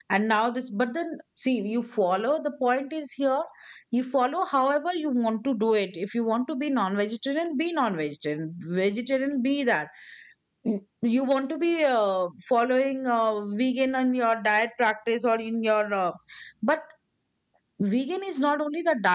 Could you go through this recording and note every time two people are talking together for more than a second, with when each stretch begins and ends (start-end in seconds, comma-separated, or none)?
none